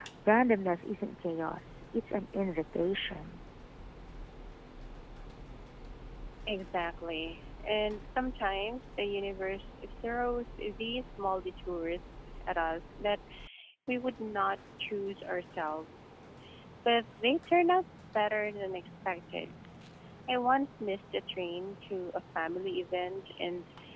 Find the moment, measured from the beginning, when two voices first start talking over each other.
none

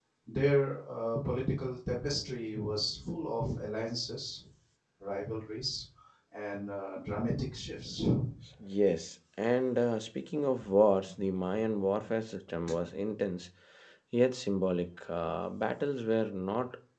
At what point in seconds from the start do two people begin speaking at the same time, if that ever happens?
none

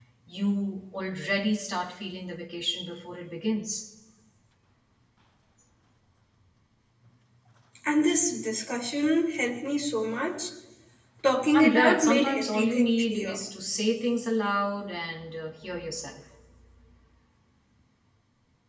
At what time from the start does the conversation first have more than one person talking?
11.5 s

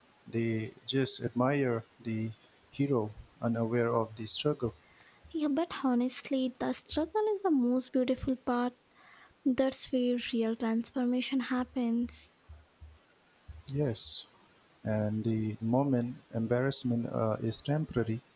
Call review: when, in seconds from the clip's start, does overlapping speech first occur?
none

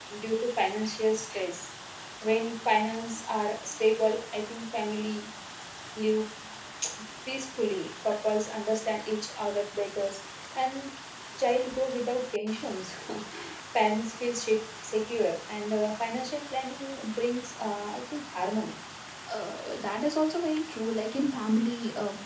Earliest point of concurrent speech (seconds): none

